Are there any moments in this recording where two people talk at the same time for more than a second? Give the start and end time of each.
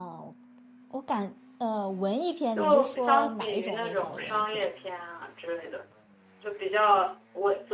2.6-4.7

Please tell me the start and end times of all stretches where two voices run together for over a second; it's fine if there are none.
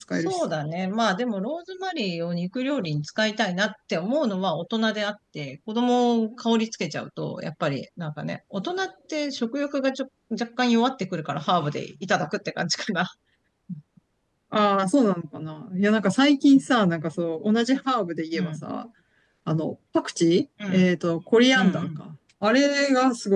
none

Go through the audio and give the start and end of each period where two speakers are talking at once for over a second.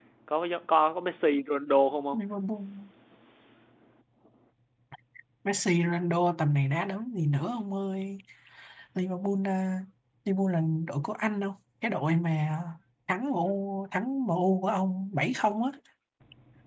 none

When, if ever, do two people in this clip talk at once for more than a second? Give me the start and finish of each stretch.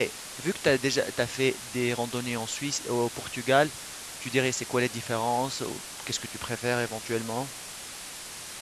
none

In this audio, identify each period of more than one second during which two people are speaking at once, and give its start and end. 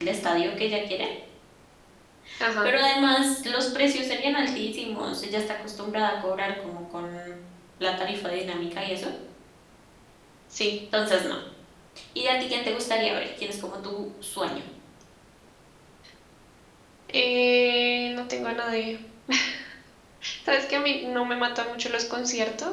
none

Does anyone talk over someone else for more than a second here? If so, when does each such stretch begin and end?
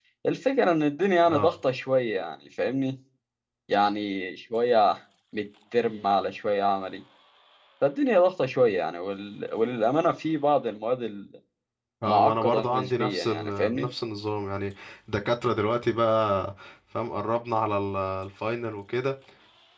12.1-13.9

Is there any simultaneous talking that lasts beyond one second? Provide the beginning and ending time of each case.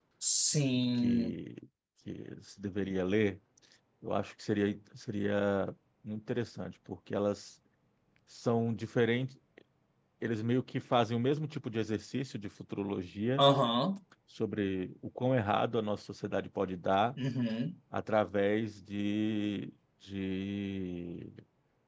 none

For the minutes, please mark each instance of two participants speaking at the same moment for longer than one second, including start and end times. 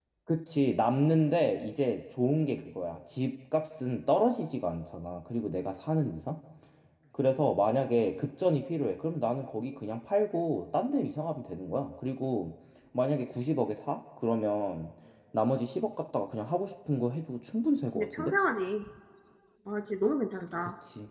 none

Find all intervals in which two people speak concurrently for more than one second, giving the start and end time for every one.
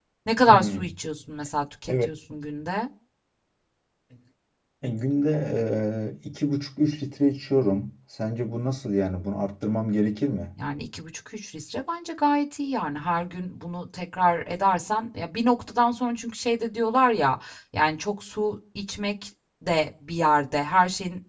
none

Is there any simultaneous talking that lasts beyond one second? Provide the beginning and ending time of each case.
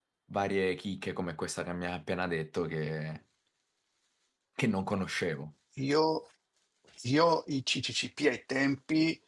none

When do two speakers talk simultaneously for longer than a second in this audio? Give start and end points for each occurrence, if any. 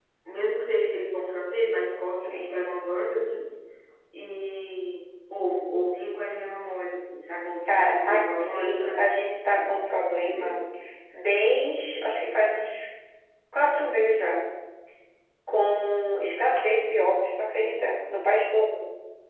7.7-9.0

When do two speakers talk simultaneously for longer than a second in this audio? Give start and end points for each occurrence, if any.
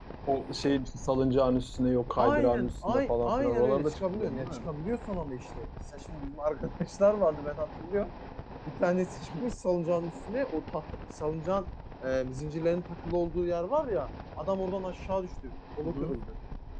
2.2-4.7

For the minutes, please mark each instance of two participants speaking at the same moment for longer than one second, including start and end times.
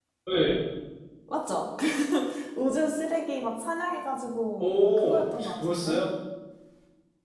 4.6-6.0

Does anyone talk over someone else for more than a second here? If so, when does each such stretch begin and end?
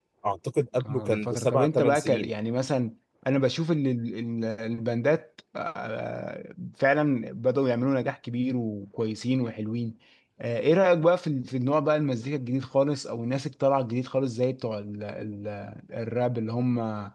0.9-2.3

